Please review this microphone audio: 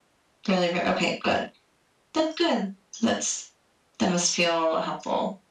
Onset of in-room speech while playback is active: none

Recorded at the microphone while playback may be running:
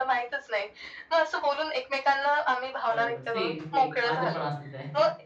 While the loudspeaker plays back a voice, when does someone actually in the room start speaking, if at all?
2.9 s

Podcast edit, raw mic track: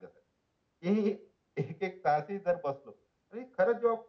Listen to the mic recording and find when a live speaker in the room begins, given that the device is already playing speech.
none

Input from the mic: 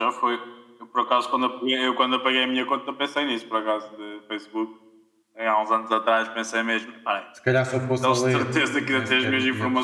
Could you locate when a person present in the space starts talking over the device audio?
7.3 s

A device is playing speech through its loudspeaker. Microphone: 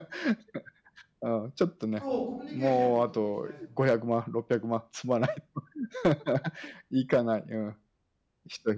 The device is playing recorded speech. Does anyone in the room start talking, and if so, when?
1.9 s

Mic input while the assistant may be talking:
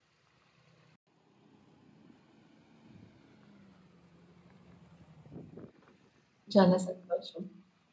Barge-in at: 6.5 s

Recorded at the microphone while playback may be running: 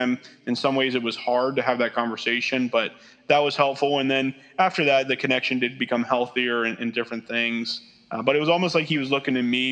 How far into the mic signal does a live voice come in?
none

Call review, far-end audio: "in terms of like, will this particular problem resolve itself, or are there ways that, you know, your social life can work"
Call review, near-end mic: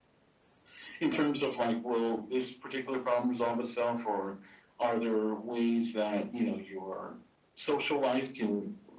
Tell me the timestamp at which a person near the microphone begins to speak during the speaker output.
none

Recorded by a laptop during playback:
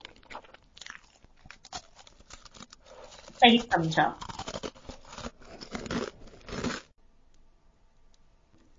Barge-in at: 3.3 s

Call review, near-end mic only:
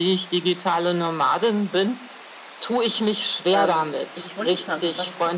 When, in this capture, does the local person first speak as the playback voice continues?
3.6 s

